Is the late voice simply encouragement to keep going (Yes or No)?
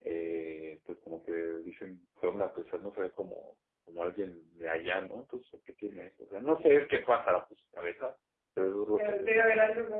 No